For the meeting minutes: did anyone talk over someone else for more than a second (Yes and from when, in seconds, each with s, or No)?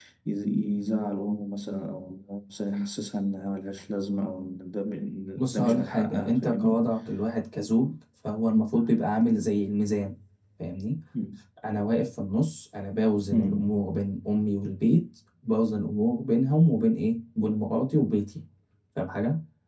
Yes, from 5.4 s